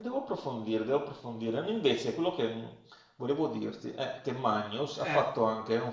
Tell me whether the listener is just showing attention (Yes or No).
Yes